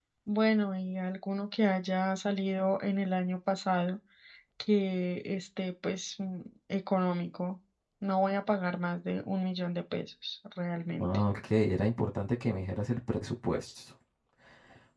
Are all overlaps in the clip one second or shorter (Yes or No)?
Yes